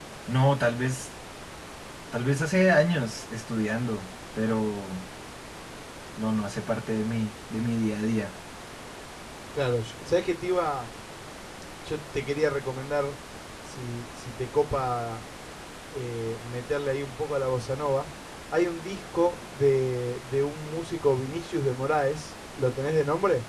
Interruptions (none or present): none